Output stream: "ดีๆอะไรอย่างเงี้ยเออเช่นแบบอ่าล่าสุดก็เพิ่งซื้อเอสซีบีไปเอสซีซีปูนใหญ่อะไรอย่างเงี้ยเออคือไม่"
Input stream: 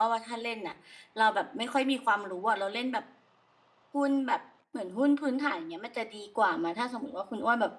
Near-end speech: present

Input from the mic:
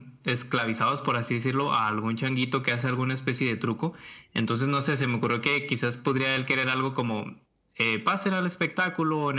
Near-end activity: none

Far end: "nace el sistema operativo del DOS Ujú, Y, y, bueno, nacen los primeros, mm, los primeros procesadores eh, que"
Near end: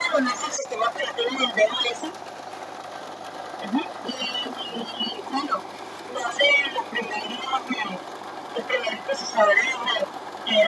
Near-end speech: none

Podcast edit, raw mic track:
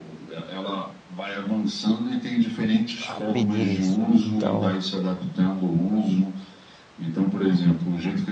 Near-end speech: present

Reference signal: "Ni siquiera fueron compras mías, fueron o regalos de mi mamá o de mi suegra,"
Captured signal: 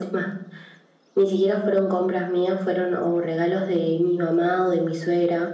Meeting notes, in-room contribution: none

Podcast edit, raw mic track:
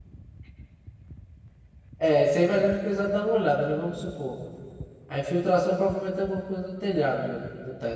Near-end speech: present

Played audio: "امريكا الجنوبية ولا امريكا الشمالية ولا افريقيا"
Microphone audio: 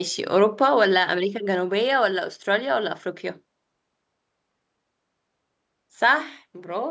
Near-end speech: present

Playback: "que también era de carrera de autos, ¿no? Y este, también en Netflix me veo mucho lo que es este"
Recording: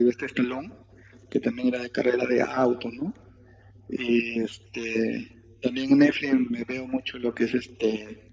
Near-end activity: none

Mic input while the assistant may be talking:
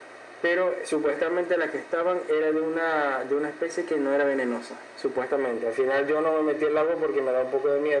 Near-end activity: none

